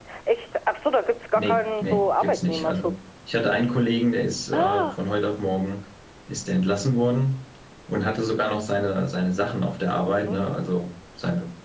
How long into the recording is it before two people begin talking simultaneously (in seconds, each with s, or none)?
1.4 s